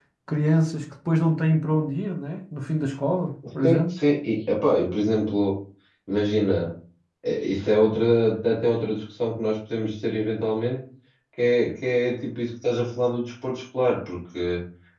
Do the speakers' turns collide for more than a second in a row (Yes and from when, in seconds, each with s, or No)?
No